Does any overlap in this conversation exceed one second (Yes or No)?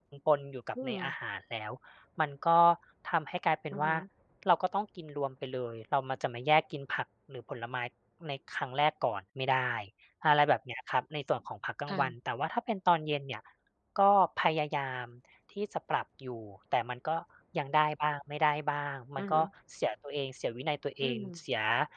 No